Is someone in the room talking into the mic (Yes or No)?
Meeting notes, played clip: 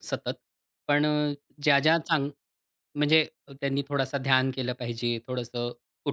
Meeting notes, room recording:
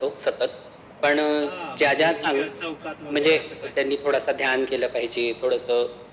Yes